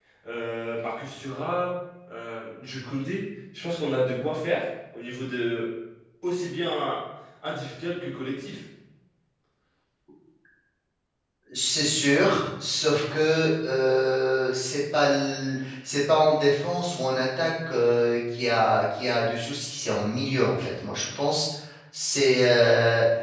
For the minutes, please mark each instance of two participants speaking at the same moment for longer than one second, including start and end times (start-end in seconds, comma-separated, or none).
none